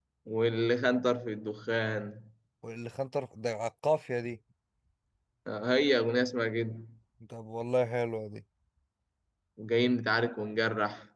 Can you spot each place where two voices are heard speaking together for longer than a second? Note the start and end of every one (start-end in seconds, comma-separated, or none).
none